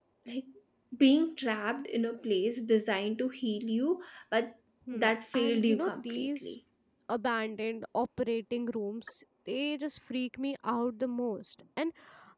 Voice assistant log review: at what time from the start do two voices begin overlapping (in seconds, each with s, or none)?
4.9 s